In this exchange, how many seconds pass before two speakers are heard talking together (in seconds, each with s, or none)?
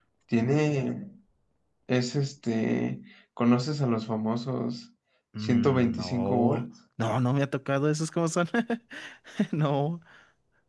5.4 s